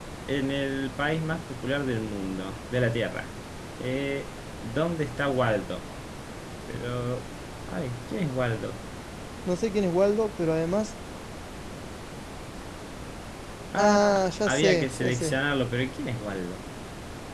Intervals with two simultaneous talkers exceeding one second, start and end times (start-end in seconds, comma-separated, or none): 13.8-15.3